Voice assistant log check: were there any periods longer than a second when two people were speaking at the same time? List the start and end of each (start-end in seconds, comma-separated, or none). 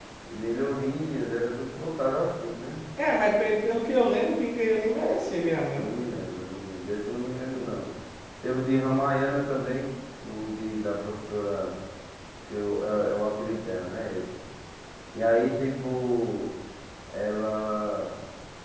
none